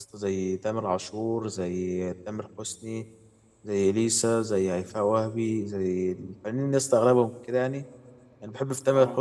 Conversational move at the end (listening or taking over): listening